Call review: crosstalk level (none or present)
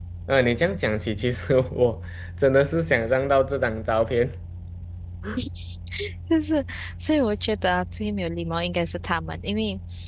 none